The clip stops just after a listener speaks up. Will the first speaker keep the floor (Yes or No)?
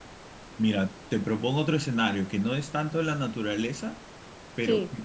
Yes